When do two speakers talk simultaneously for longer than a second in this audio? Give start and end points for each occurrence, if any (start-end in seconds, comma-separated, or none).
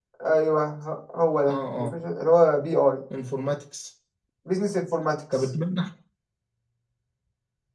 none